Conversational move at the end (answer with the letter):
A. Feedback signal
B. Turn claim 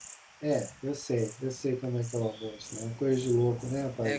B